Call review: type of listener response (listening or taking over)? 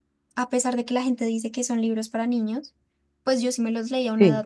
listening